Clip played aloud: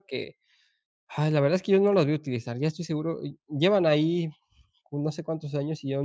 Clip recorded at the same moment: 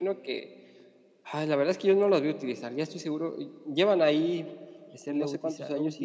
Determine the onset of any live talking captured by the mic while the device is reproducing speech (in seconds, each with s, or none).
4.9 s